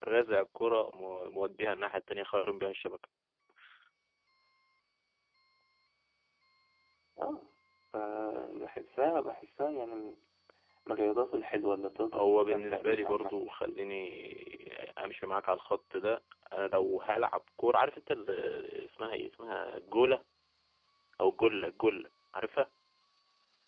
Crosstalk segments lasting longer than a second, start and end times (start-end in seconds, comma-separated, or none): 12.1-13.3